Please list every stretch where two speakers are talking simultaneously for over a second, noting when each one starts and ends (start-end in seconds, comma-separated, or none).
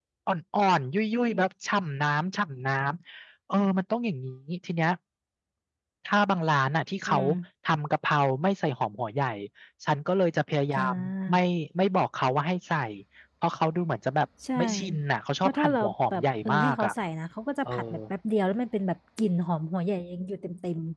15.4-16.9